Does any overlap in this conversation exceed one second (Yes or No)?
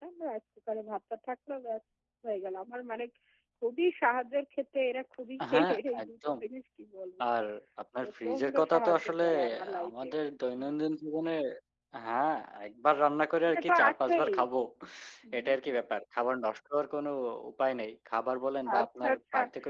Yes